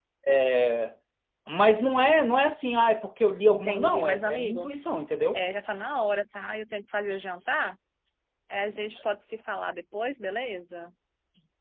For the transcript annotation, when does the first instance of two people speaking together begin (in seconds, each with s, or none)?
3.5 s